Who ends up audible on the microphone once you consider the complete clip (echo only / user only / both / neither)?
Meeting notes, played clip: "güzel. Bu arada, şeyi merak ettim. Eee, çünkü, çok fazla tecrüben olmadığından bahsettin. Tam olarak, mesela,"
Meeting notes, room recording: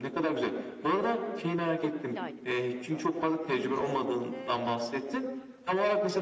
both